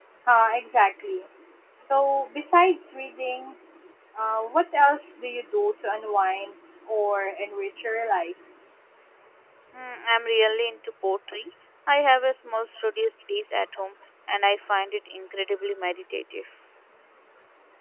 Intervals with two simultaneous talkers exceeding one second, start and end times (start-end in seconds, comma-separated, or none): none